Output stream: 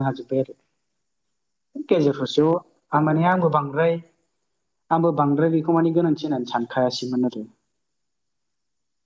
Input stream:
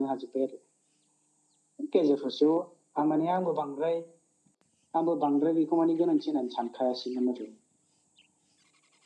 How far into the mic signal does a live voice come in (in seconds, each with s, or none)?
none